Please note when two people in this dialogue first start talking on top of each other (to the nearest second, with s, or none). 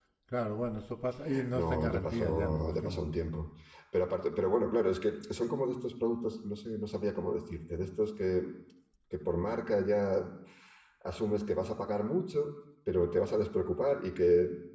2 s